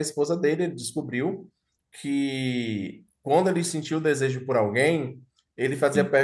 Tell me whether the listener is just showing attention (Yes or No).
Yes